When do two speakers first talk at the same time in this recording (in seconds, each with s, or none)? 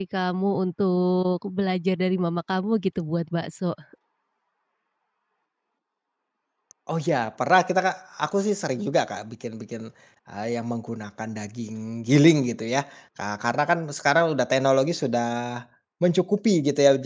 none